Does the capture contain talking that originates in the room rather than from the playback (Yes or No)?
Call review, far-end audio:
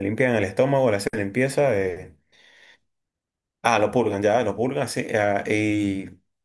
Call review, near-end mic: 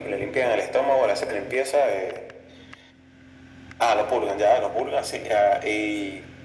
No